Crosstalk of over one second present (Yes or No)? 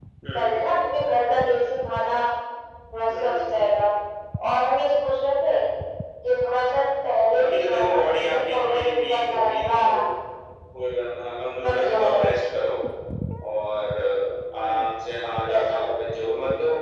Yes